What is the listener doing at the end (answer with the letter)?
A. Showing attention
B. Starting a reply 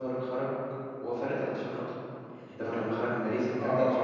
B